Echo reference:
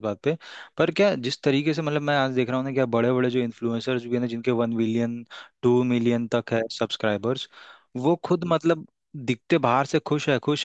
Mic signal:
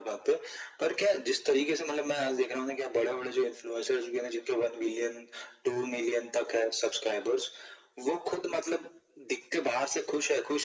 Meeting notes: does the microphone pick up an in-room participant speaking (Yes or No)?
No